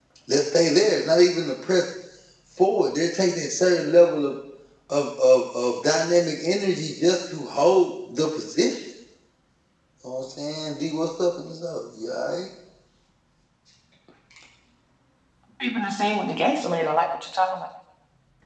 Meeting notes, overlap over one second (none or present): none